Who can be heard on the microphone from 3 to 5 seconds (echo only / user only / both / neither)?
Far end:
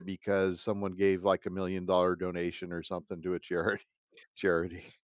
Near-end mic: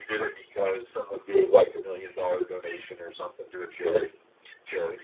echo only